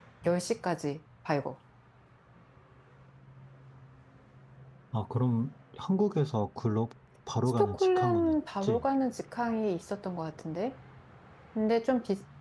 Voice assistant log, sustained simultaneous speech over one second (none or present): present